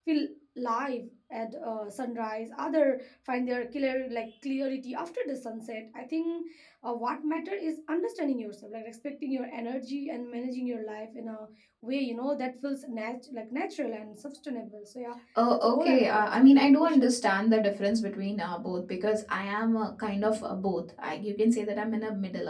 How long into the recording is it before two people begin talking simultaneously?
15.3 s

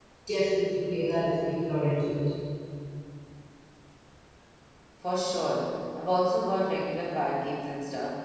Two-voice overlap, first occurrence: none

